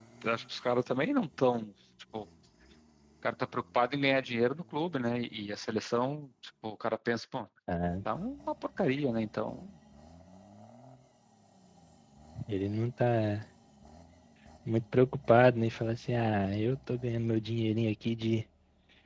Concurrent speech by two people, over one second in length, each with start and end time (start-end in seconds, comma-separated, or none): none